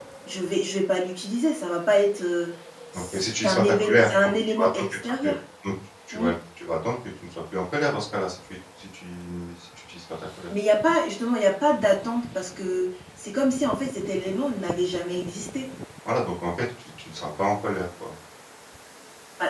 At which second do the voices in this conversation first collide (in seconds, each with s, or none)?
3.1 s